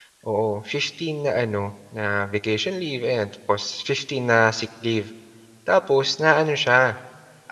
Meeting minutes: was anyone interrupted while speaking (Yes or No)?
No